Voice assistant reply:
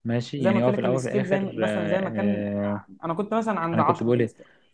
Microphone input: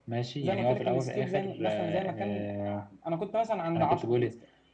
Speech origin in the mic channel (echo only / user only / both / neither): echo only